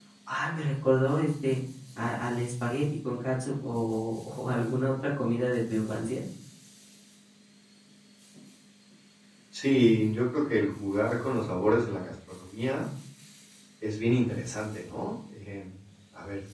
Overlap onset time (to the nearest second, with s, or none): none